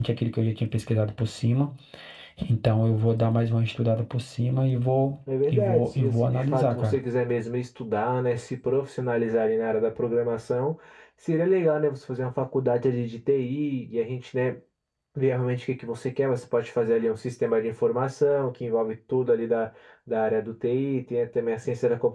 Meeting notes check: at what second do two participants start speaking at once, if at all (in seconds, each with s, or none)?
5.3 s